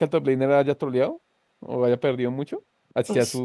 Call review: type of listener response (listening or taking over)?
taking over